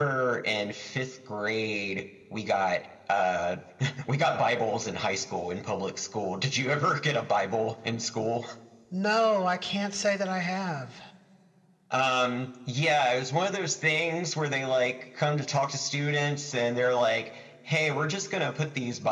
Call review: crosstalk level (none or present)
none